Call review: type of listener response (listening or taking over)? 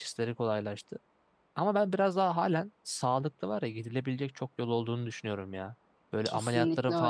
listening